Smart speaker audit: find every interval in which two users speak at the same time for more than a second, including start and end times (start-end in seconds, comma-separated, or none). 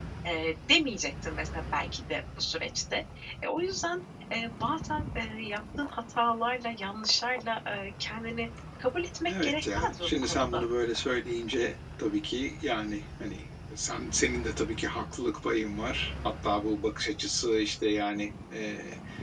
9.3-10.6